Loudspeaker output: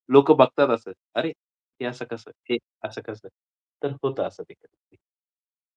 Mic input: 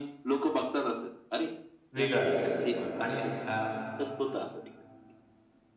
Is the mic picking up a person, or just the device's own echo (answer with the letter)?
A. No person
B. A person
B